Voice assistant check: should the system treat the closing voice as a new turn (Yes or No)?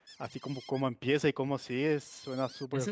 Yes